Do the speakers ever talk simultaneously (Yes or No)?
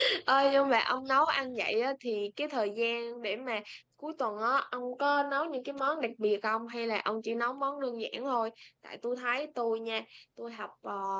No